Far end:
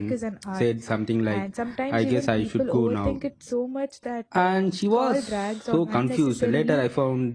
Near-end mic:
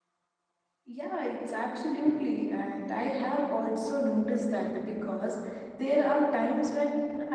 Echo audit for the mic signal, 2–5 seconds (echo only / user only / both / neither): user only